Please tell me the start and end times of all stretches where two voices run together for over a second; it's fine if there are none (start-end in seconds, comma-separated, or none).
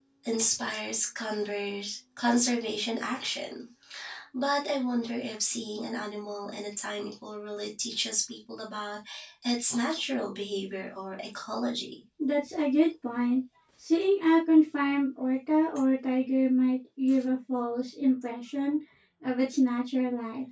none